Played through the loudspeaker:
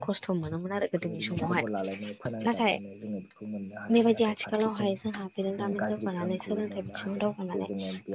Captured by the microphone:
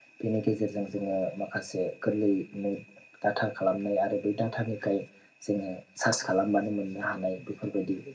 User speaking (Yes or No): Yes